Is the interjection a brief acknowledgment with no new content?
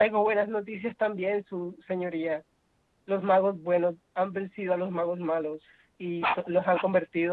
Yes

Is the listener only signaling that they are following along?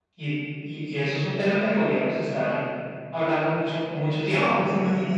No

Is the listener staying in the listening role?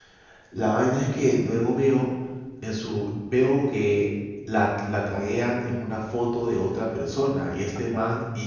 Yes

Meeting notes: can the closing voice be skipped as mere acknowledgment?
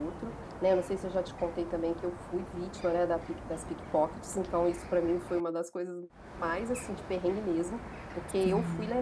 Yes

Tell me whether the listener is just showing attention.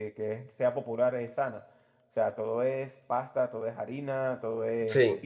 Yes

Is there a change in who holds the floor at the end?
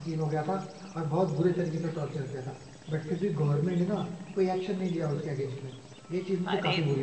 Yes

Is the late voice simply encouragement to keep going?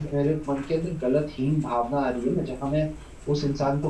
Yes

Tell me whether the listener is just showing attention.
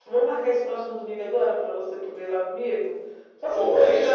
No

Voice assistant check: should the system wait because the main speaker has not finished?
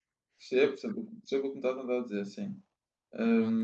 No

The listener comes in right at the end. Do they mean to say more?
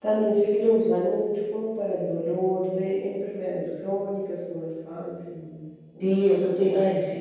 Yes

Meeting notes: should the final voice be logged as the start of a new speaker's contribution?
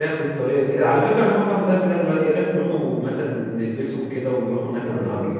Yes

